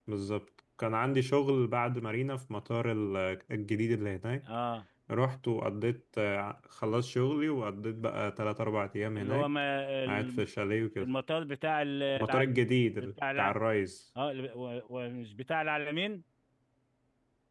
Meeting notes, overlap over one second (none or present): none